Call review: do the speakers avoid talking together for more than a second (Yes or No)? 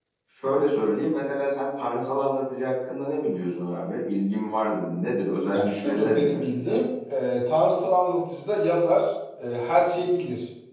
No